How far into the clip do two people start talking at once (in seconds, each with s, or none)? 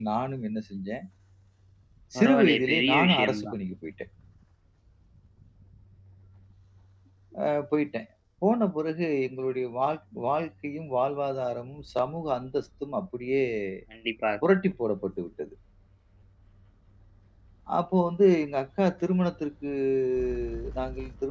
2.2 s